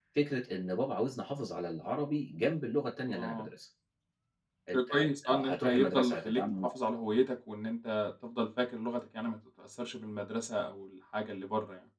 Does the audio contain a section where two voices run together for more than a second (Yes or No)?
Yes